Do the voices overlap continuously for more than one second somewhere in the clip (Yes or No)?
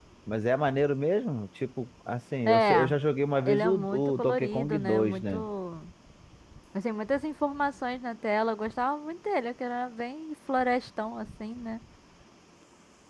Yes